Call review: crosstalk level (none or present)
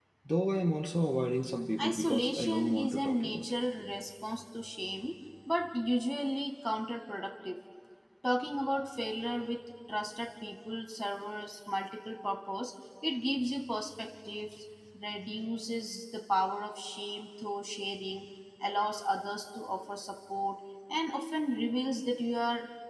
present